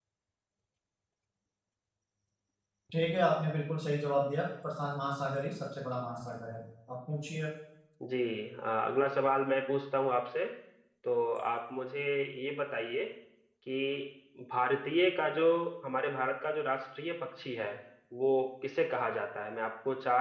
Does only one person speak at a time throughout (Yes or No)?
Yes